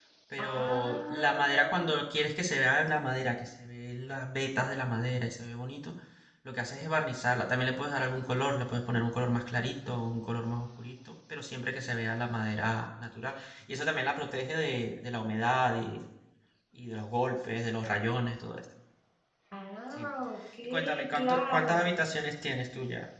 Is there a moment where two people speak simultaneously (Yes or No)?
Yes